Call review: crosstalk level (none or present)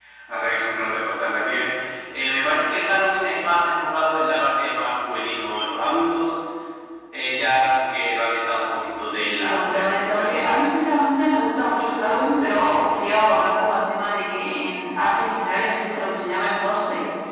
present